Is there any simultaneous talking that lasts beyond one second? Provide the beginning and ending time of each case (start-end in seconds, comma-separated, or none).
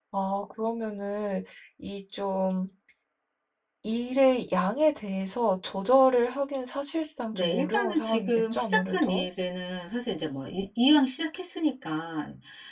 7.3-9.2